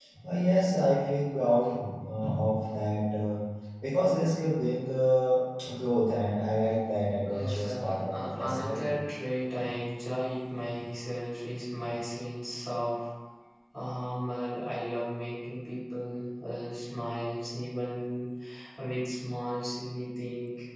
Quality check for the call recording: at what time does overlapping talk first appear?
7.3 s

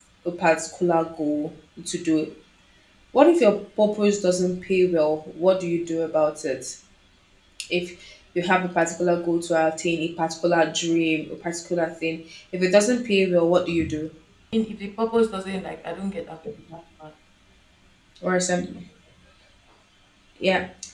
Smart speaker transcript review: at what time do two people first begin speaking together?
none

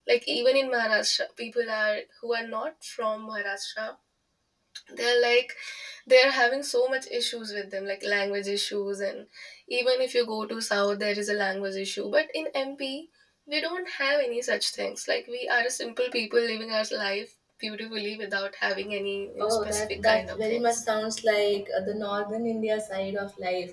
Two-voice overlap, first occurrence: 19.4 s

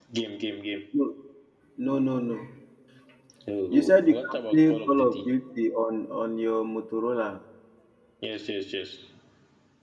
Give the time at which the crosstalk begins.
3.7 s

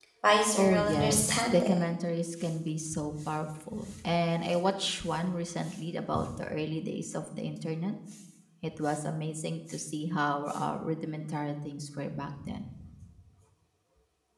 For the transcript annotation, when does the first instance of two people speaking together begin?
0.6 s

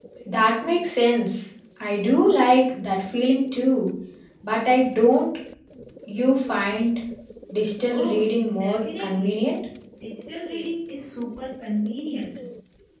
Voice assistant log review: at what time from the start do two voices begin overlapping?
7.9 s

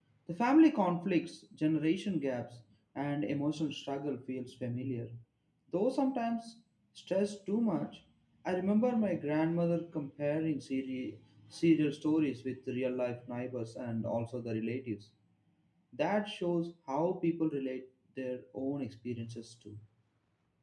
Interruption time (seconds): none

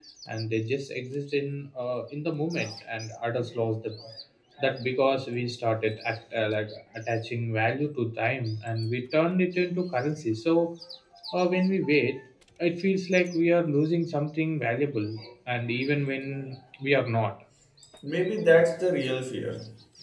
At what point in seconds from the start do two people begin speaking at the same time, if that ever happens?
none

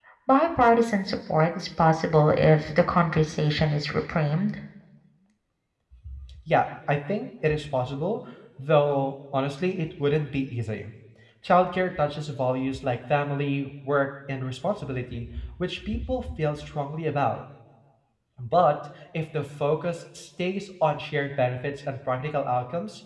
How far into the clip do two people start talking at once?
none

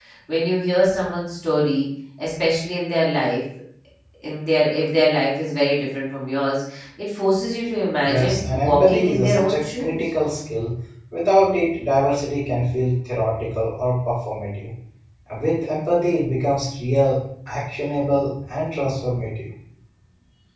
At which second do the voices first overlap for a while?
8.1 s

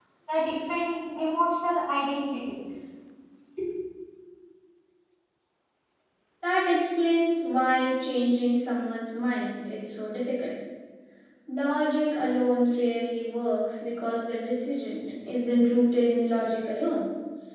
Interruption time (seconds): none

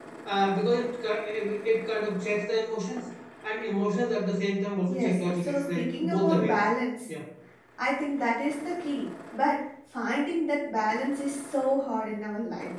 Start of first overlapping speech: 4.9 s

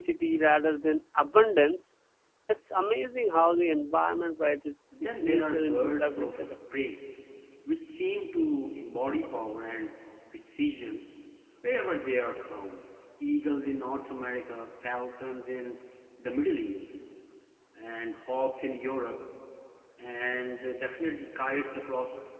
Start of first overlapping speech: 5.2 s

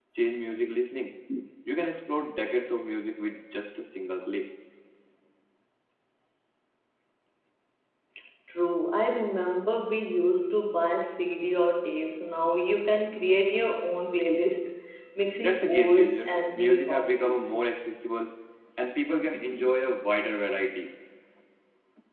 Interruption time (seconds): 15.4 s

